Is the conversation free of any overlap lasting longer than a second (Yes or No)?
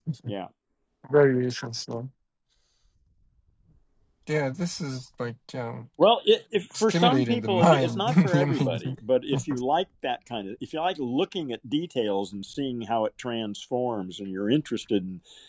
No